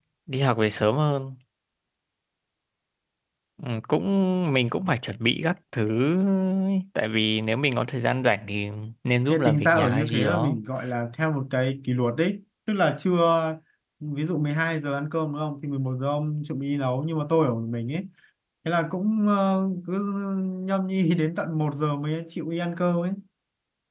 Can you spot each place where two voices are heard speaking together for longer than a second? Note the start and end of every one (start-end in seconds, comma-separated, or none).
9.3-10.6